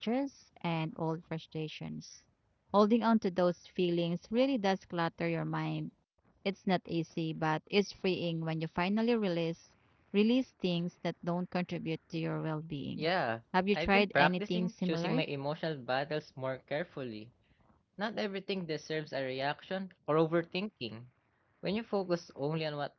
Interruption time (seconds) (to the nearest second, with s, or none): 14 s